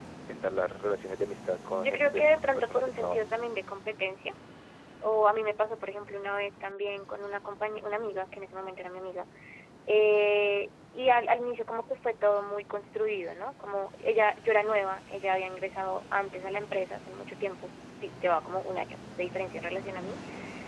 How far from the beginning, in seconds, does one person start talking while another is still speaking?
2 s

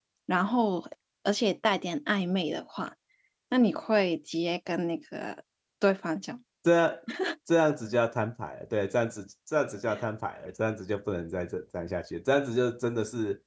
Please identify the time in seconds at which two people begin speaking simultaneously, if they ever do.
none

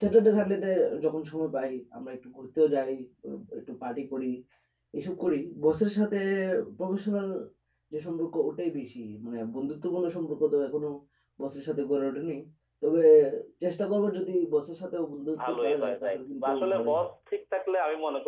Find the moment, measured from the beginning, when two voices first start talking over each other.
15 s

